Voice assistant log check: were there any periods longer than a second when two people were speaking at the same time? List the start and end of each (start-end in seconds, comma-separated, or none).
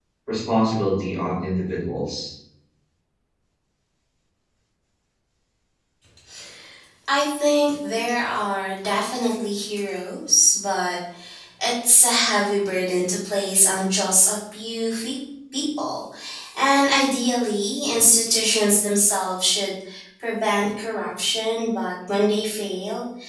none